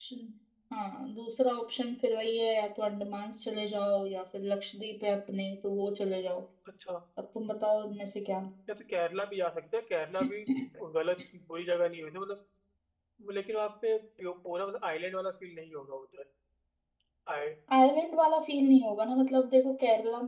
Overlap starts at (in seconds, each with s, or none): none